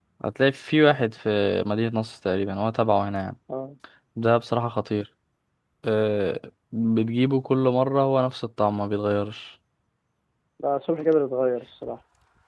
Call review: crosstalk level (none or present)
none